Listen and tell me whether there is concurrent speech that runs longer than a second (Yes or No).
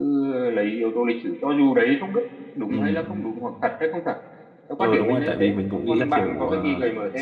Yes